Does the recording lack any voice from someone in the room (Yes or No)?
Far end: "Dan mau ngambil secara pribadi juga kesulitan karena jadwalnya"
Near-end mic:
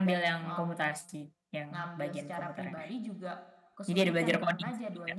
No